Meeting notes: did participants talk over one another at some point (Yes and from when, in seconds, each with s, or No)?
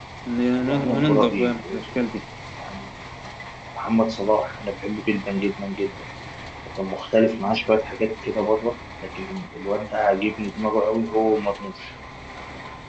Yes, from 0.6 s